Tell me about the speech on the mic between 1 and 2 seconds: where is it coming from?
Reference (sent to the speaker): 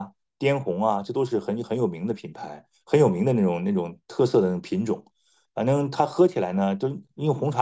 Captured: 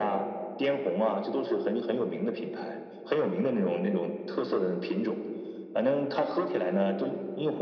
echo only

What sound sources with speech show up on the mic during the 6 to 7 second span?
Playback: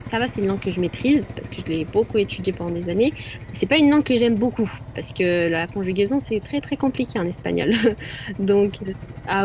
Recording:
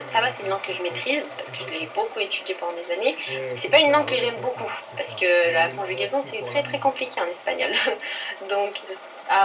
both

